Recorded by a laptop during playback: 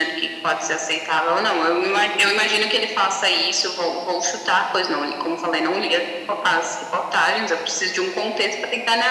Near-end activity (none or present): none